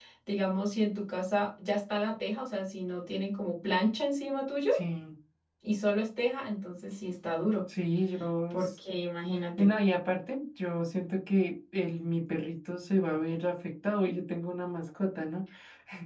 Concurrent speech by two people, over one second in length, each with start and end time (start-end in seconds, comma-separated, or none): none